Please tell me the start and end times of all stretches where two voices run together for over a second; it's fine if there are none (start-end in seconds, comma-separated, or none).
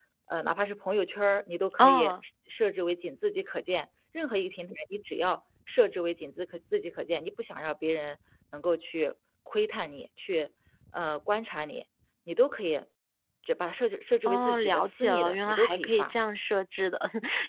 14.2-16.1